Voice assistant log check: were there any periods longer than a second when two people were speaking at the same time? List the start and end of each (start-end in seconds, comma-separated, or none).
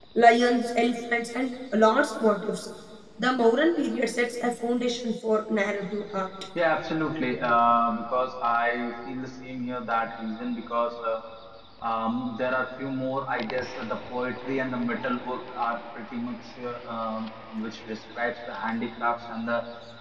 none